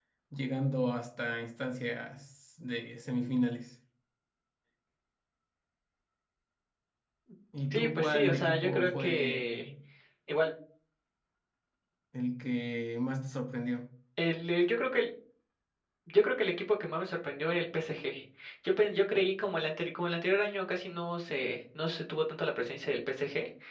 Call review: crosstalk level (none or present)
present